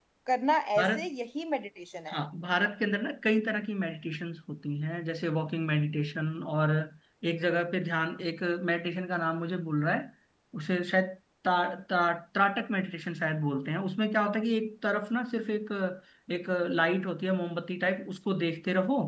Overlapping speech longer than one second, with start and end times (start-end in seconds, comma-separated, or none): none